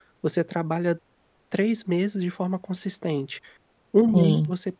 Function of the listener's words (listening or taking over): listening